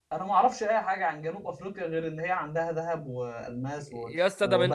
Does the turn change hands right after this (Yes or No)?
Yes